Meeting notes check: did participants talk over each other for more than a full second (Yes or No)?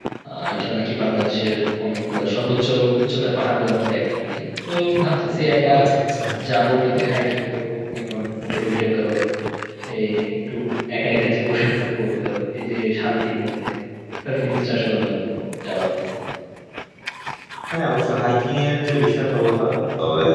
No